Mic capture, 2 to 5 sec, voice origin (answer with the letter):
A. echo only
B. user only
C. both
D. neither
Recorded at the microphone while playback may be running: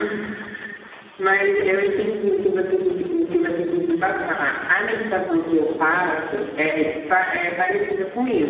B